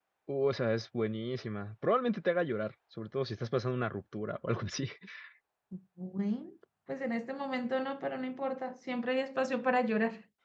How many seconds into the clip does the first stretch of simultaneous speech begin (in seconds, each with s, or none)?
none